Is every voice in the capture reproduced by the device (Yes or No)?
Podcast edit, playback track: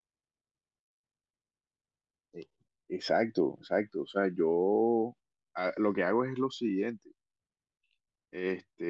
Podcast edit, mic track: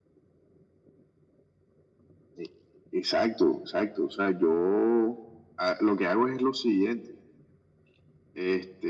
Yes